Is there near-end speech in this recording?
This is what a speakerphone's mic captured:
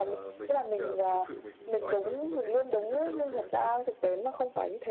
Yes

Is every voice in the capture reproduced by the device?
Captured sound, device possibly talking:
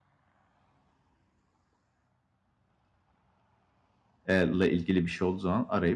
No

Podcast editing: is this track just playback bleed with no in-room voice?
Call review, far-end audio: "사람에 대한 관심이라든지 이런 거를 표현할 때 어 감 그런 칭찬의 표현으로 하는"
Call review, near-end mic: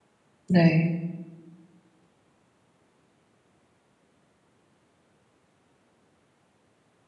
No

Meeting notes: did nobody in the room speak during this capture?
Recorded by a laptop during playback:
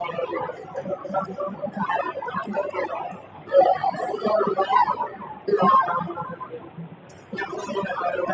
Yes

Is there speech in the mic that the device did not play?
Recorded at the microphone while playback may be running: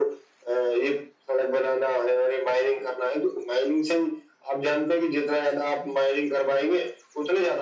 No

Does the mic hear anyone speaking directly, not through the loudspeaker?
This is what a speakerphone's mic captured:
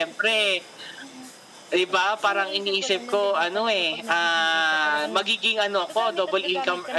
Yes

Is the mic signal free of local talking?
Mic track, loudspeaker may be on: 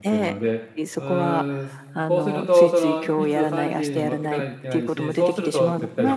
No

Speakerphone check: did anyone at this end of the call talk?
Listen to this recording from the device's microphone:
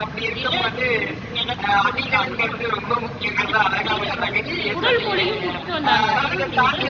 Yes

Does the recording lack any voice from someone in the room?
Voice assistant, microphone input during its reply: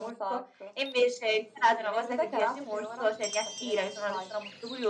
Yes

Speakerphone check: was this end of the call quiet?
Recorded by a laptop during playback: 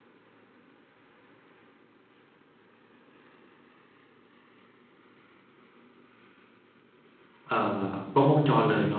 No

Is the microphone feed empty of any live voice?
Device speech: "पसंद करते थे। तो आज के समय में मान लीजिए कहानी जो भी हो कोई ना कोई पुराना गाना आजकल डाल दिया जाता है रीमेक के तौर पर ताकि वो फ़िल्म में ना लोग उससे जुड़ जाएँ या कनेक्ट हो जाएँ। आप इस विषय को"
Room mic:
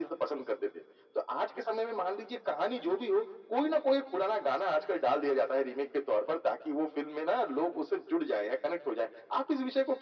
Yes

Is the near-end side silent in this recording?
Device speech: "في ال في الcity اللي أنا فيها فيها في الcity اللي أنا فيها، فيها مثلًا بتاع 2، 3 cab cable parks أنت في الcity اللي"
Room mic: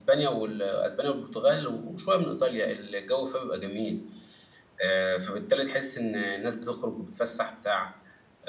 No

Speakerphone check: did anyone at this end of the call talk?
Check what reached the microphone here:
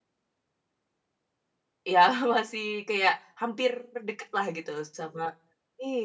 Yes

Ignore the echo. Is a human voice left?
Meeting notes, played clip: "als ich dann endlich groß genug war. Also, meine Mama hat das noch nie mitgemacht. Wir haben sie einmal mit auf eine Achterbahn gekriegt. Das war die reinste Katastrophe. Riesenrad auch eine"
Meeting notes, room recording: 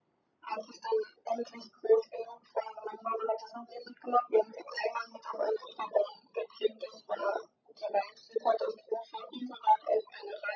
No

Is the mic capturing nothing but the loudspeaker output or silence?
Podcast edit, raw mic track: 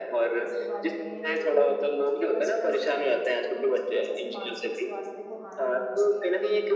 No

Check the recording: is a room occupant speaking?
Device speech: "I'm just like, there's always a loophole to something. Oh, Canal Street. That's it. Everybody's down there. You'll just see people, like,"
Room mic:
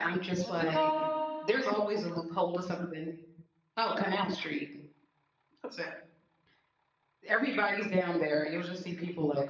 Yes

